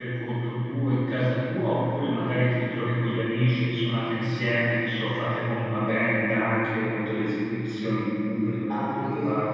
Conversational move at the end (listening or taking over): taking over